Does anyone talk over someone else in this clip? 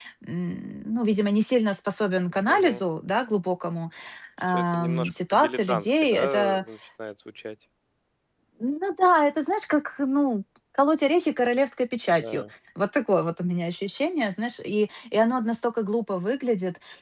Yes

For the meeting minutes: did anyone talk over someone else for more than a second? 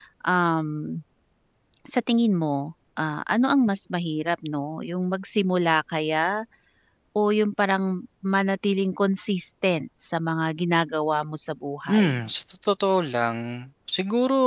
No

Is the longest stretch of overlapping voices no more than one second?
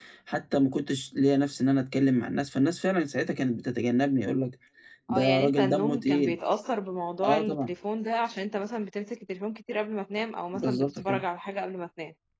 No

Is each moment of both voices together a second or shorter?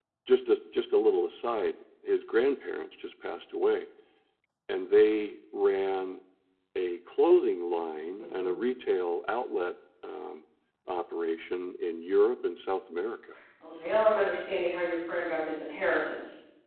Yes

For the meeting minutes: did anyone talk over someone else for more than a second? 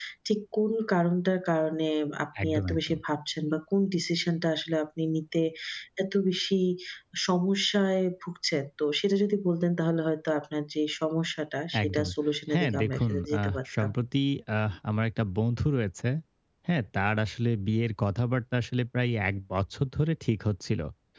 Yes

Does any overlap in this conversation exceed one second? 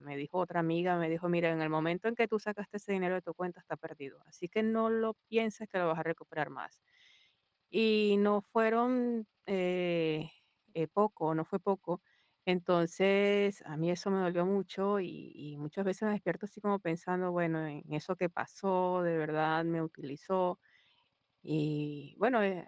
No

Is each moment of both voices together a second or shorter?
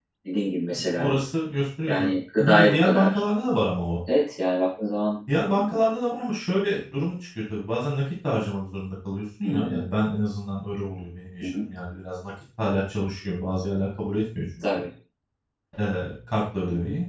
No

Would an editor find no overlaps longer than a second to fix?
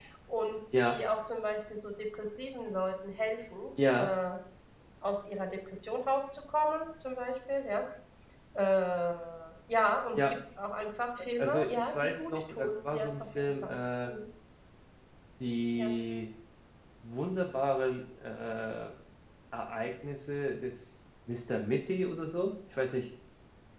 No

